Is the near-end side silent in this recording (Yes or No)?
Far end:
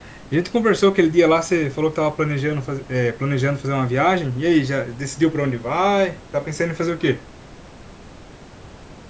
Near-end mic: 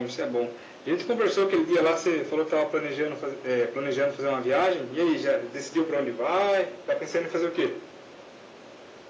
Yes